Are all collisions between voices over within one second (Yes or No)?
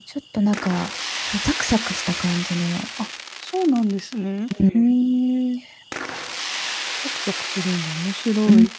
Yes